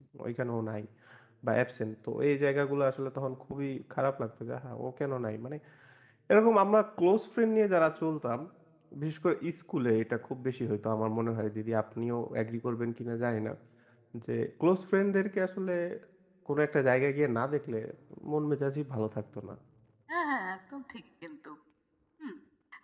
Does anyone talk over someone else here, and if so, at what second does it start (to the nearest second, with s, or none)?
none